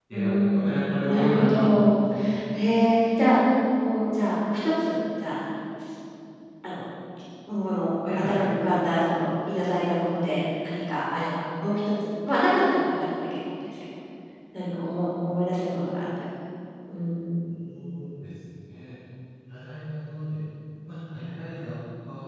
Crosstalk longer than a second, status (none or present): present